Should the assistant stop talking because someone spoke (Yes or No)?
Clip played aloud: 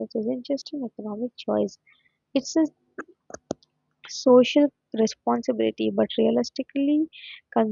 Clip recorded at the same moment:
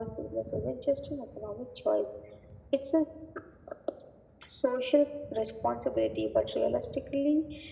No